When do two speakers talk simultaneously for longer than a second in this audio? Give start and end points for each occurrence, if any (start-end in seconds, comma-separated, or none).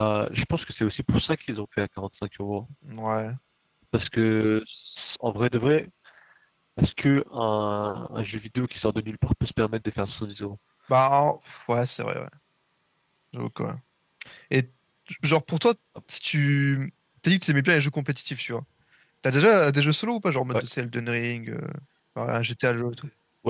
none